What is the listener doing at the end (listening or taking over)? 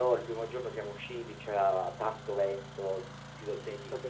listening